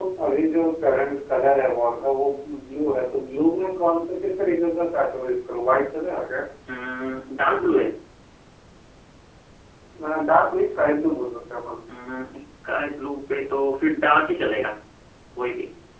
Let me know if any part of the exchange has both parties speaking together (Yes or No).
No